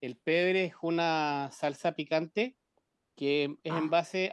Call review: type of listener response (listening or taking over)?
listening